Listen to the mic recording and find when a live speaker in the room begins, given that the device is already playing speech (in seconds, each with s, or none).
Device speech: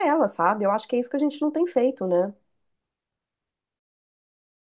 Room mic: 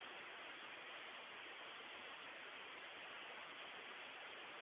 none